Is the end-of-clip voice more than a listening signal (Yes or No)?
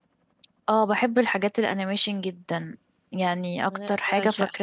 No